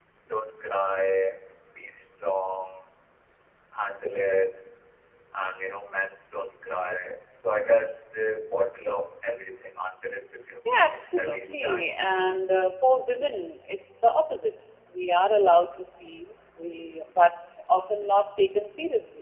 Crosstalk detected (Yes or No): Yes